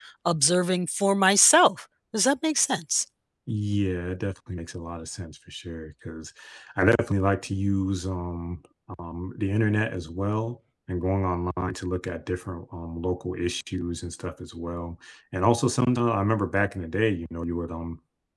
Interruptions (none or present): none